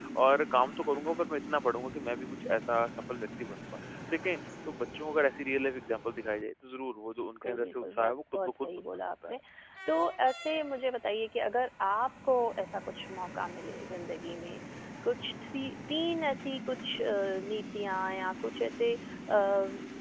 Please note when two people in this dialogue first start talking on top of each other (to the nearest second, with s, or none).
7 s